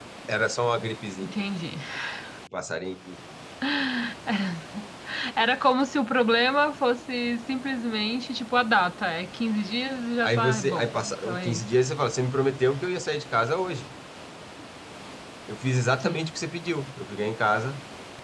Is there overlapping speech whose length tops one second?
Yes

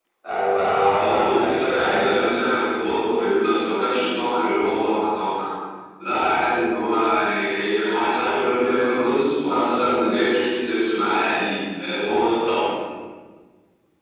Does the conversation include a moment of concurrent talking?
Yes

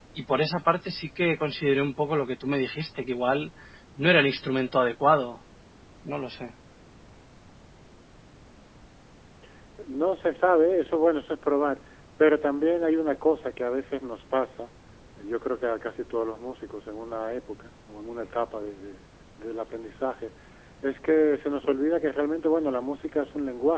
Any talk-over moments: No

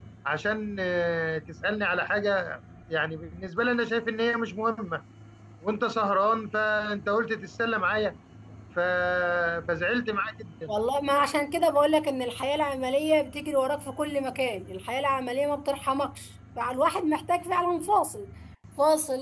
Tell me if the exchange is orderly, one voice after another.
Yes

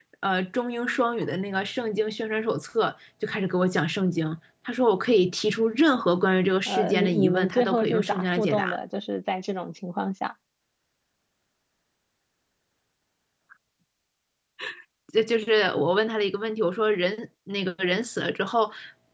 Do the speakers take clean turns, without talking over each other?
No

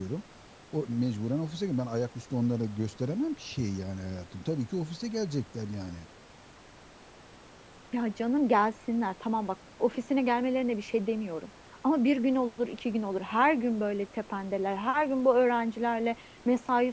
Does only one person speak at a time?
Yes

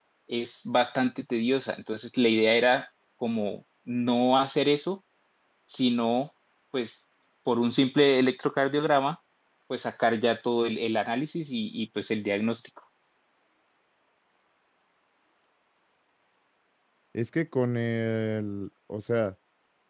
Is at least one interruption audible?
No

